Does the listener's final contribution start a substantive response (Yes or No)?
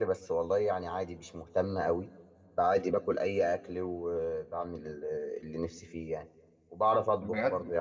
No